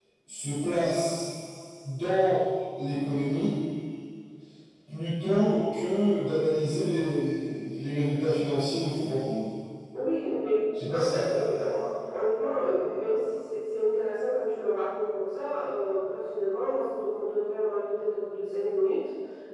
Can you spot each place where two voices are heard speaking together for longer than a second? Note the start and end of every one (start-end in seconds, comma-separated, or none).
none